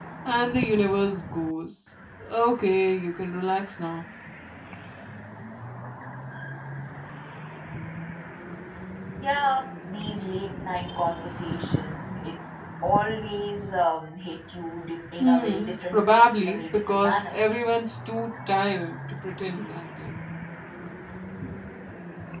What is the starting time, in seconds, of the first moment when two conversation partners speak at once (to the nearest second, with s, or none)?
15 s